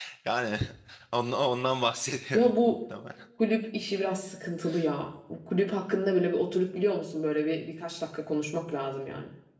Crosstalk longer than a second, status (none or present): none